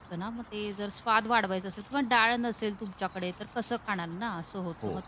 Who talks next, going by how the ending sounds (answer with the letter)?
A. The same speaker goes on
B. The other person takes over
A